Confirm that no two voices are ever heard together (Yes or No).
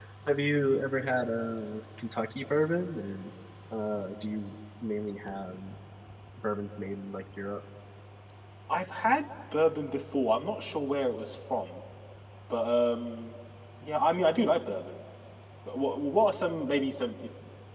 Yes